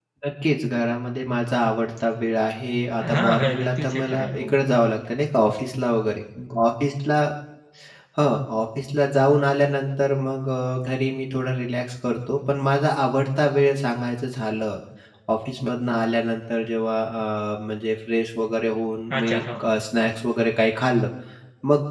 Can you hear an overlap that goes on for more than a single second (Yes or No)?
Yes